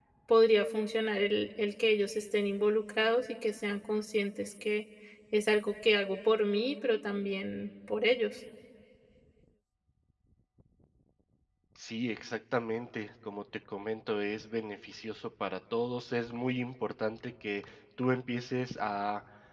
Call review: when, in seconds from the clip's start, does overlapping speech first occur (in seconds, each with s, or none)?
none